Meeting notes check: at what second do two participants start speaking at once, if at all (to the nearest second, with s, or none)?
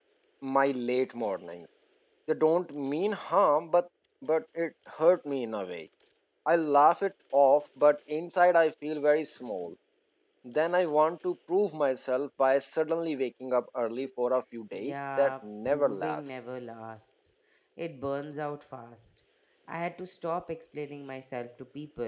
15 s